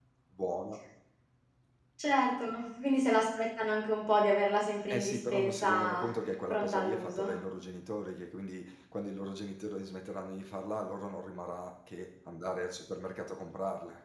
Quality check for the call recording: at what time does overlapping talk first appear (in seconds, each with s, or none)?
4.9 s